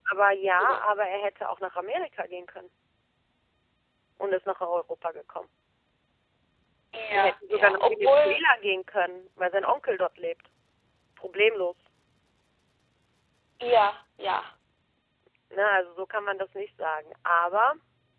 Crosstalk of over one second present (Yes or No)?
Yes